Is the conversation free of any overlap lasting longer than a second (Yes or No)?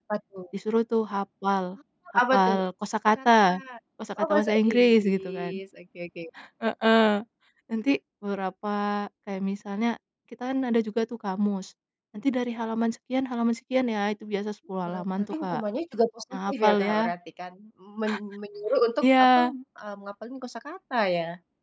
No